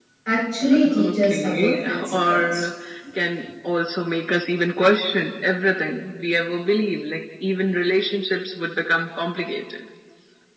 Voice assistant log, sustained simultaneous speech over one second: present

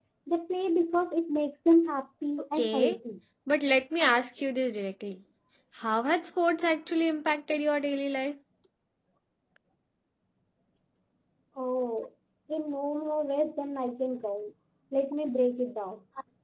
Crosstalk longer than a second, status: none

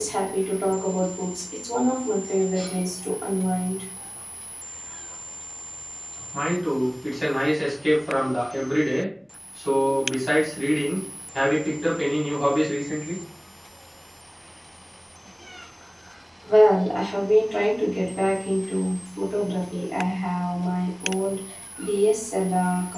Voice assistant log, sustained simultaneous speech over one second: none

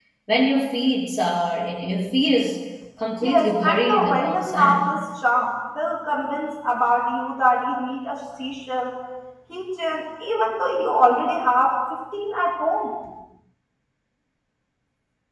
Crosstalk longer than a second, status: present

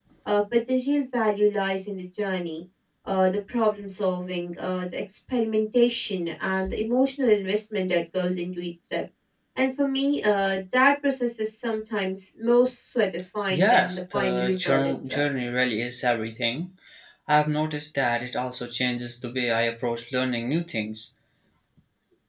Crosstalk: present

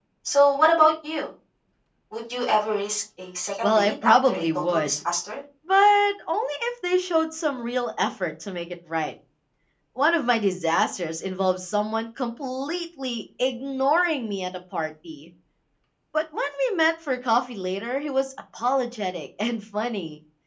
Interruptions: present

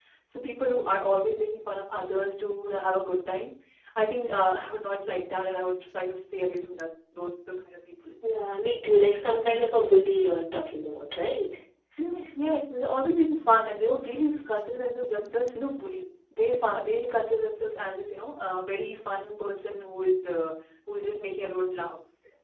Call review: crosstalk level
none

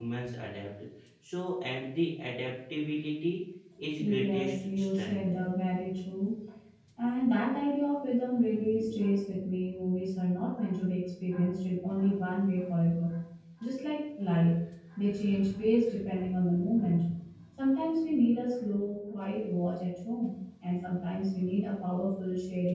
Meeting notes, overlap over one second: present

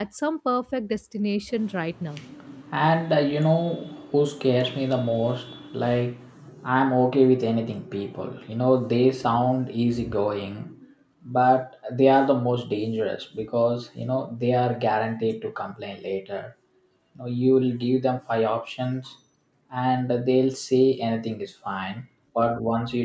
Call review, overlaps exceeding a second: none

